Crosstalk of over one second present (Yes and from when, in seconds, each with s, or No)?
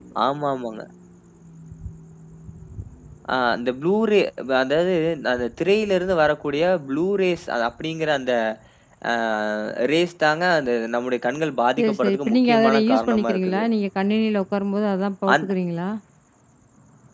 Yes, from 11.8 s